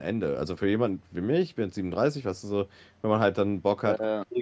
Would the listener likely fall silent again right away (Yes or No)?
Yes